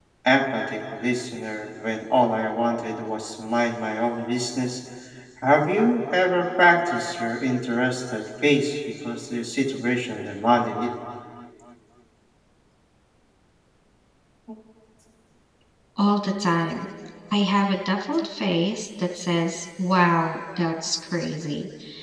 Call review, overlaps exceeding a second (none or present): none